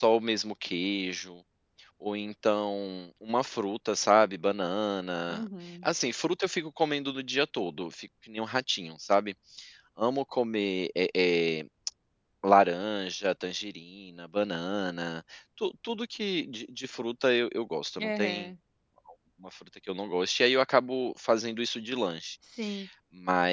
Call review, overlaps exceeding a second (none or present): none